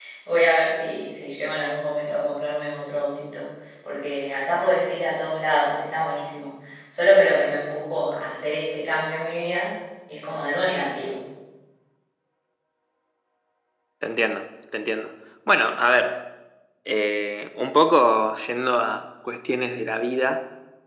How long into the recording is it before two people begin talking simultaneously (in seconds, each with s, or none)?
none